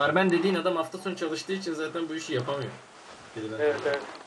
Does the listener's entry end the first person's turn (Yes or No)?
Yes